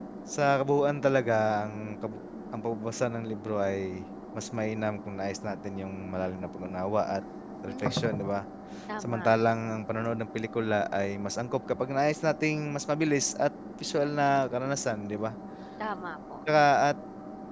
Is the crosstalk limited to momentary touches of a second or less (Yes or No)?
Yes